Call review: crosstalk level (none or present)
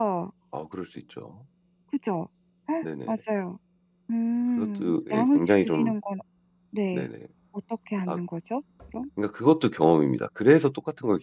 present